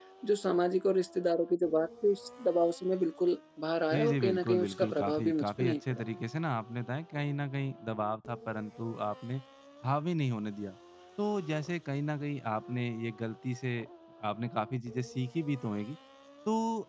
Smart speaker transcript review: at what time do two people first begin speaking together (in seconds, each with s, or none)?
3.9 s